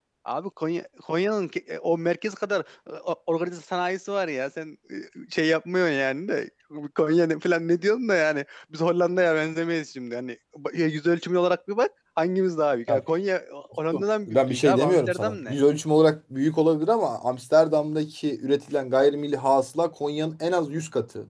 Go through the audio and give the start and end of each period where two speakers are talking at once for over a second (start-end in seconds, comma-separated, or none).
14.3-15.6